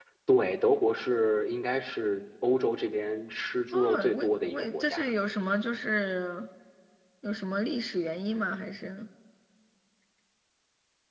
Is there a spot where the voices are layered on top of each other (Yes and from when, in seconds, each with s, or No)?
Yes, from 3.7 s